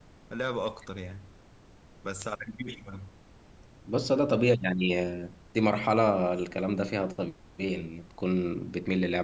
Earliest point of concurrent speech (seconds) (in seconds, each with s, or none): none